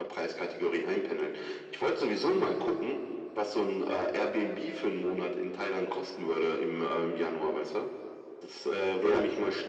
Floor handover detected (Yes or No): No